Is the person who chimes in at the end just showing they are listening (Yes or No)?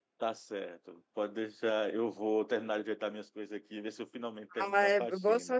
No